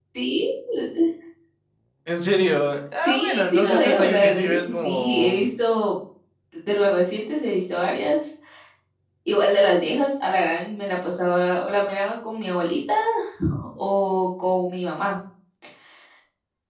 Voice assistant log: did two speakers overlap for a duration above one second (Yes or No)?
Yes